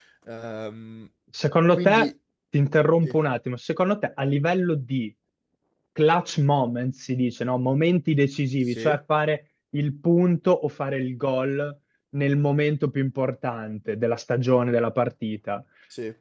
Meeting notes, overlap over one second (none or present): none